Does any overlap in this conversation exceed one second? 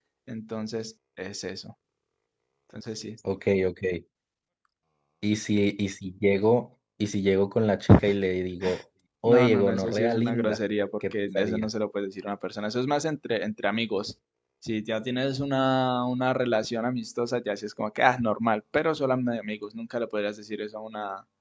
Yes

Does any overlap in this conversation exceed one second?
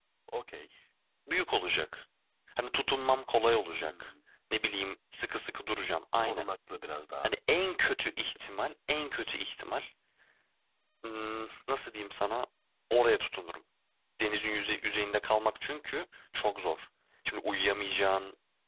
No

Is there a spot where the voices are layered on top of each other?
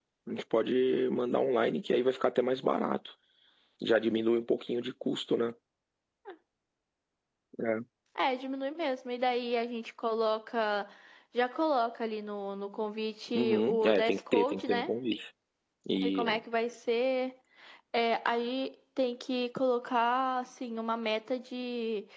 Yes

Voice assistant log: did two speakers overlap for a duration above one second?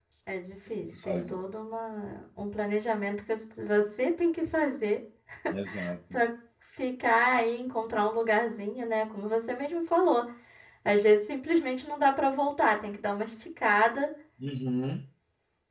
No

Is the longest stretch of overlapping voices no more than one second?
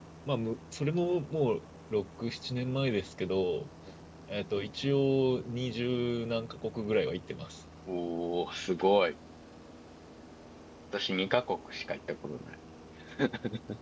Yes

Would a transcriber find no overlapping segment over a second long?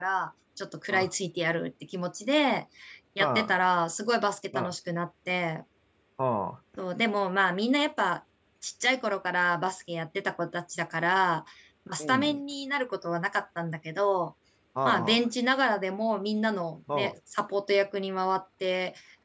Yes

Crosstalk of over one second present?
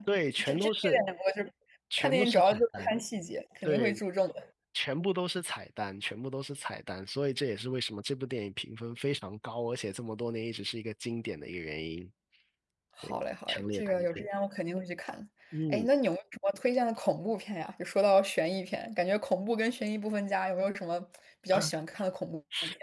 Yes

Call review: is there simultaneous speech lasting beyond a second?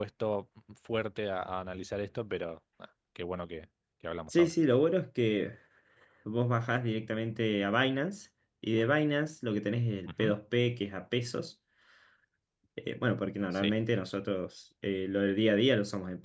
No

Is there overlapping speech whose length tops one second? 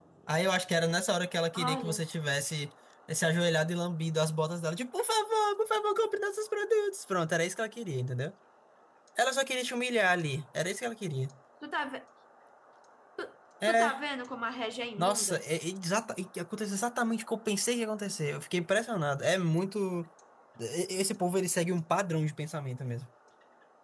No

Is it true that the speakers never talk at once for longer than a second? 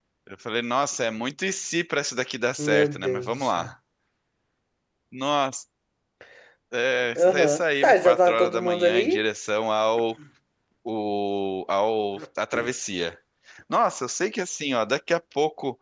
No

